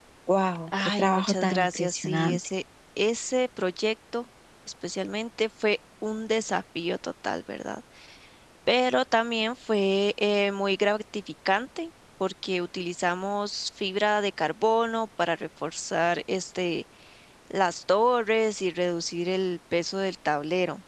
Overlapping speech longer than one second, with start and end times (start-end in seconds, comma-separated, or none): 0.8-2.4